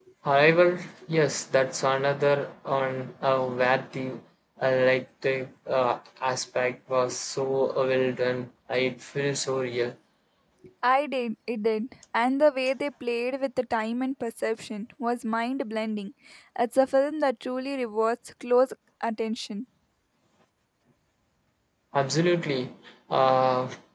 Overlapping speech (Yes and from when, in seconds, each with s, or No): No